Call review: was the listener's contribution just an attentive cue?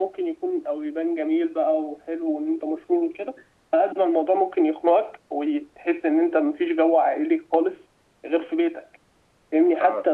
Yes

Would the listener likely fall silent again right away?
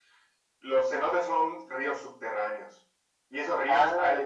Yes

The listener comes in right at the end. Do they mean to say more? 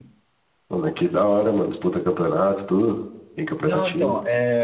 Yes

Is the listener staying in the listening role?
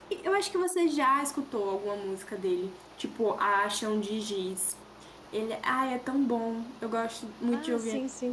No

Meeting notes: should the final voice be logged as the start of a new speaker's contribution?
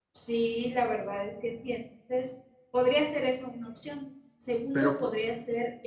No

